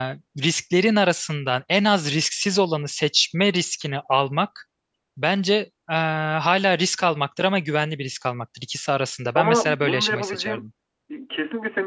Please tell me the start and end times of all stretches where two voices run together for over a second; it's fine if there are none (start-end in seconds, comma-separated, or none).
9.3-10.6